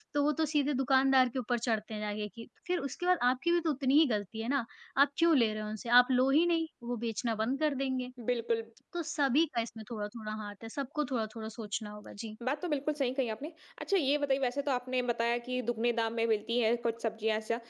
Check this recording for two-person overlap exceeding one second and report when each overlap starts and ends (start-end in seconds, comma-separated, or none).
none